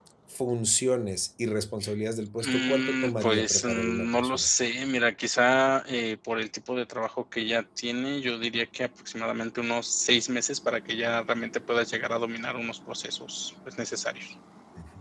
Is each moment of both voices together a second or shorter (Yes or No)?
No